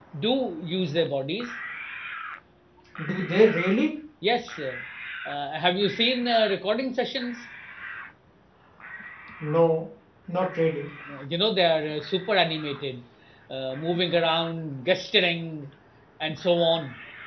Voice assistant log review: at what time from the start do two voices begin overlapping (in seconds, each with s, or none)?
none